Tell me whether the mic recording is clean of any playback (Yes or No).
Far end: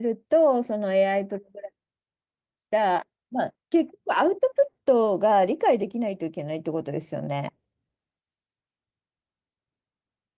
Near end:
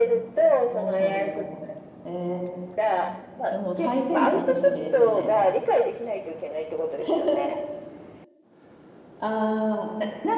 No